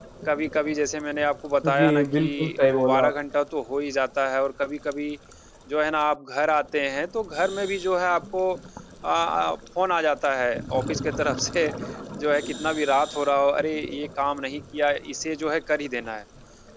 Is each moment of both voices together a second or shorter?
No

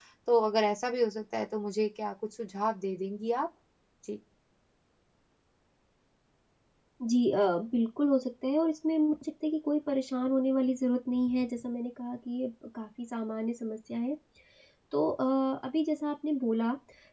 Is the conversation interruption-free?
Yes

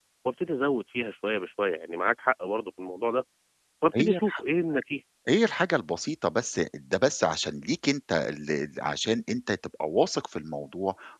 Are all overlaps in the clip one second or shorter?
Yes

